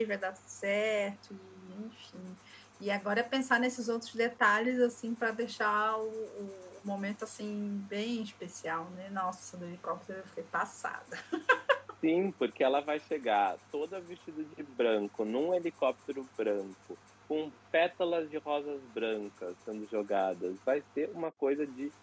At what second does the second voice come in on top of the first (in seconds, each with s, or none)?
none